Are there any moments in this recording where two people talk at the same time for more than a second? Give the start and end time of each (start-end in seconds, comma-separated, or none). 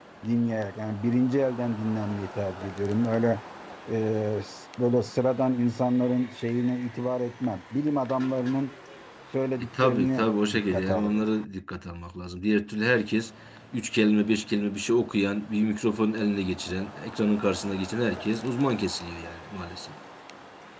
9.8-11.2